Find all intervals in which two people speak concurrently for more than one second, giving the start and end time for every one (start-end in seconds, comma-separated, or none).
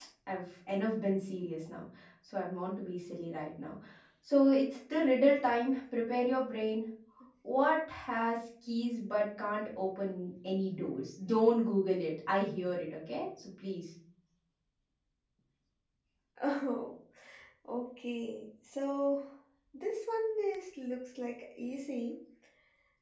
none